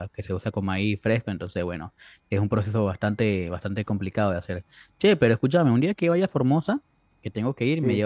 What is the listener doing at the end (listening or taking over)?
listening